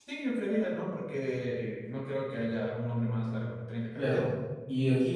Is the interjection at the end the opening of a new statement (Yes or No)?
Yes